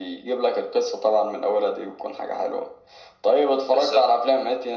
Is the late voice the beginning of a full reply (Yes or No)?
No